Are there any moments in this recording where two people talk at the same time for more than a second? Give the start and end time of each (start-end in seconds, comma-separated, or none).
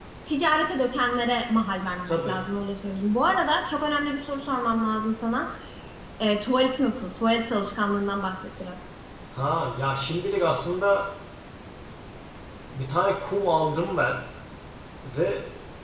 none